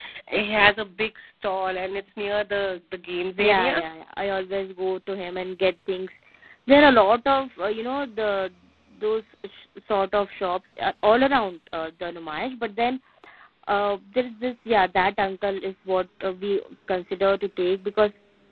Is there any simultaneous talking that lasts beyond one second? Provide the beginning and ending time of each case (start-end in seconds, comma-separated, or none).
none